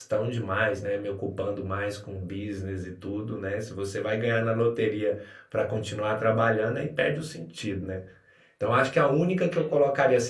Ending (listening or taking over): listening